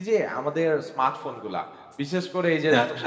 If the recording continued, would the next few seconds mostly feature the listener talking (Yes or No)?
No